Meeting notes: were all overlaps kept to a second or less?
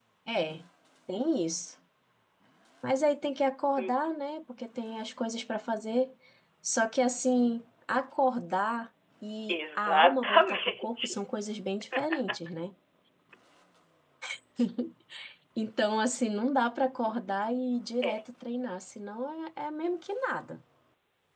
No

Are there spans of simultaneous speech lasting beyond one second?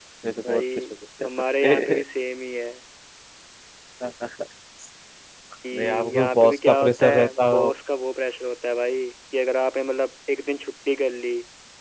Yes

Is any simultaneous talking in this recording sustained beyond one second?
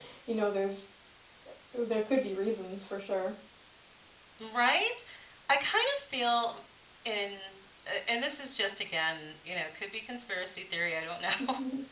No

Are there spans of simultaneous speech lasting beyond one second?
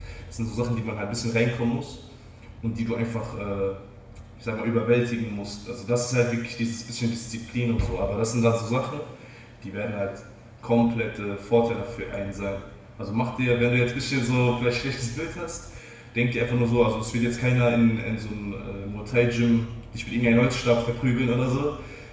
No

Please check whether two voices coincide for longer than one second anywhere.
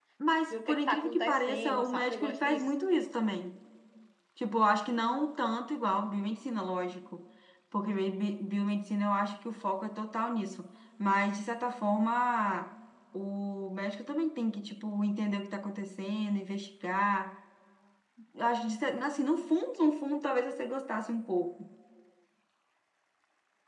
Yes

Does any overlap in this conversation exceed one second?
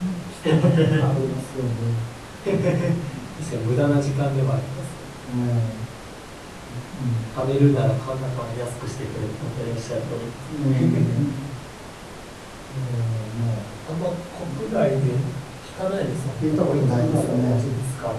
Yes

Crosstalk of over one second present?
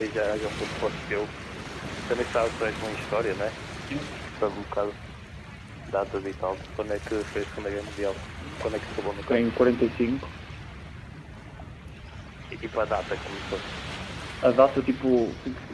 No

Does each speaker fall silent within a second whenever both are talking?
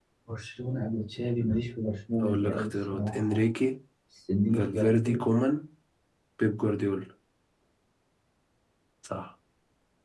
No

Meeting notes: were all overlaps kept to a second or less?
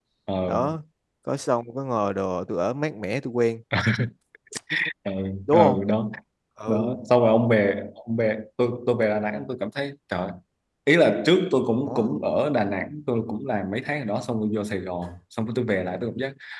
Yes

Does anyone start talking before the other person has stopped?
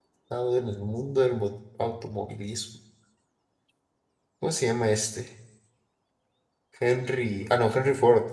No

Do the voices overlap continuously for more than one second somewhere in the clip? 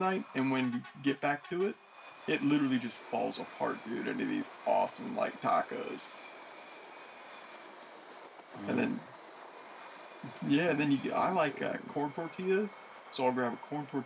Yes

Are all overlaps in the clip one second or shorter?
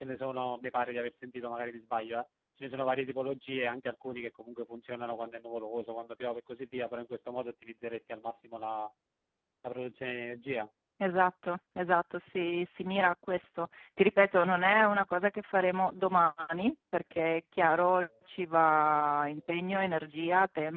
Yes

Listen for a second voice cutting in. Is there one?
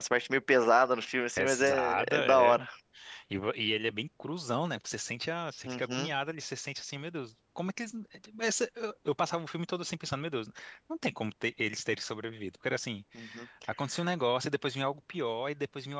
Yes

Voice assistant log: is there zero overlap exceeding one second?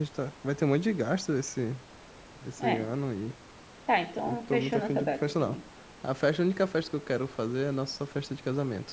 No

